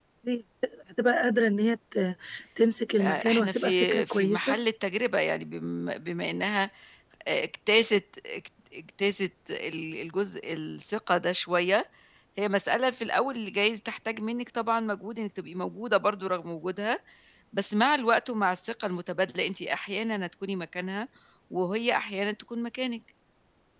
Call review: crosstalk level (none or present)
present